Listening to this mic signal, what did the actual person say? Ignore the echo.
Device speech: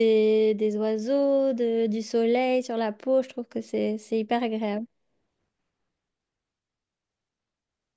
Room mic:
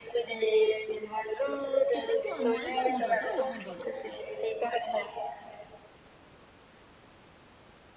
Tu sais quoi, moi également, j'adore la randonnée.

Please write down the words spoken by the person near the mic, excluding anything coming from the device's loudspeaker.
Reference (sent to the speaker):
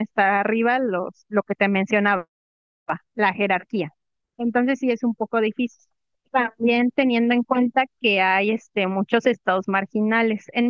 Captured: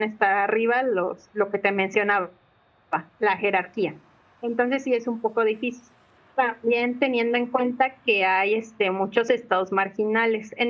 none

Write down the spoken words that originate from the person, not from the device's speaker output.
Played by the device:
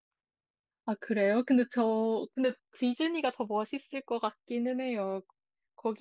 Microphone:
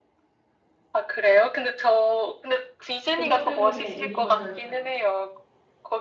그것 때문에 유니버설 가요.

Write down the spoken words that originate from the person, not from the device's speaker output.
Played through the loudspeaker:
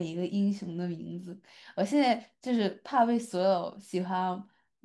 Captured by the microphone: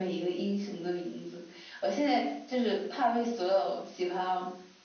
none

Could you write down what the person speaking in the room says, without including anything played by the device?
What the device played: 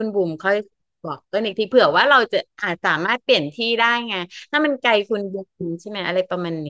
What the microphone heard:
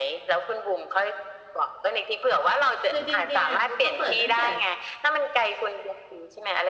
คือจริงๆอ่ะเขาก็เปิดตั้งแต่

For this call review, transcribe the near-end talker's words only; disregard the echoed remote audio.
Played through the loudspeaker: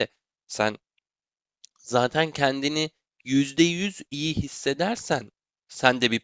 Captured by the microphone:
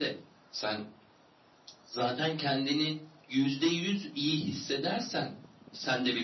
none

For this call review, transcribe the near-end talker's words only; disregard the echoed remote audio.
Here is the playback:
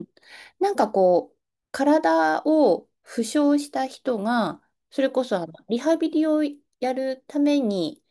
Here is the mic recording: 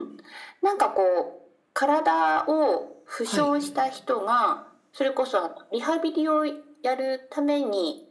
はい、

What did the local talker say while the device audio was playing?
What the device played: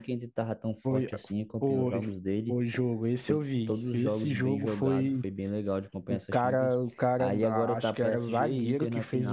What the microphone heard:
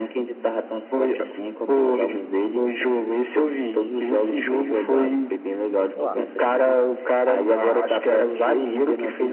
Hum, pode falar.

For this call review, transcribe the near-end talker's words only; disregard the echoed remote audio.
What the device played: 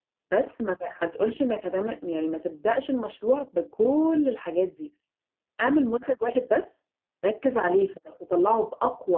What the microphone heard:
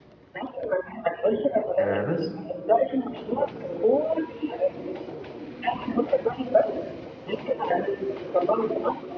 أه بس

